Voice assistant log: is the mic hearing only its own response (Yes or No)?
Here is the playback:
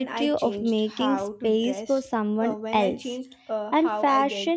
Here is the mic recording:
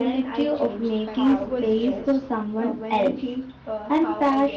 No